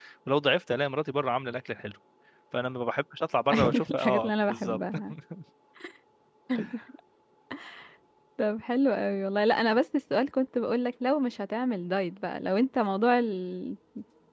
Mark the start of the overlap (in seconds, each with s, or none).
3.5 s